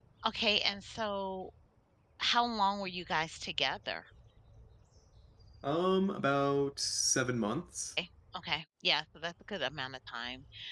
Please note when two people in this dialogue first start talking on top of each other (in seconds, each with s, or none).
none